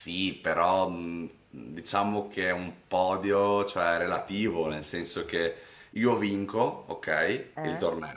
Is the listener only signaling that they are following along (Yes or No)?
Yes